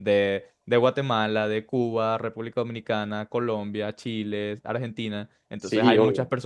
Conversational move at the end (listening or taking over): listening